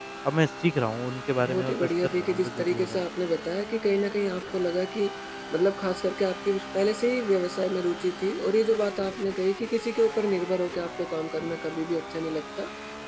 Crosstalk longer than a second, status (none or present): present